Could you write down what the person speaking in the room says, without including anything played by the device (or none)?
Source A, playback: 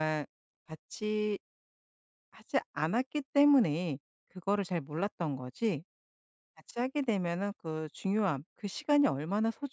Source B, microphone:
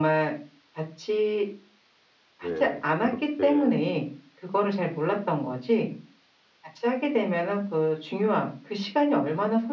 네 그 저렇게